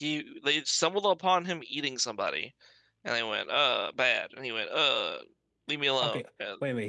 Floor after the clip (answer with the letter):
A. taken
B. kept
A